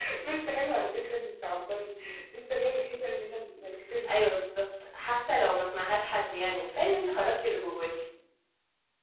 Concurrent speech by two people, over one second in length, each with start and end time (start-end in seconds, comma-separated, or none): none